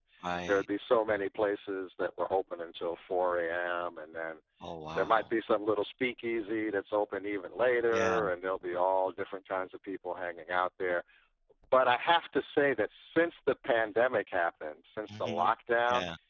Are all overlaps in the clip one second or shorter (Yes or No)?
Yes